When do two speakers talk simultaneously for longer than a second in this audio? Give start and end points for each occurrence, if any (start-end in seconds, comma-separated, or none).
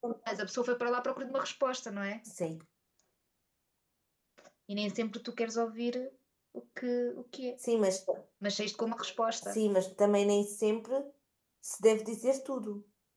none